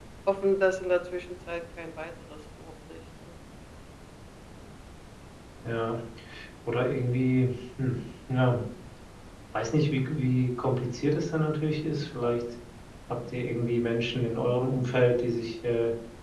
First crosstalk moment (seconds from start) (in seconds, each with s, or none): none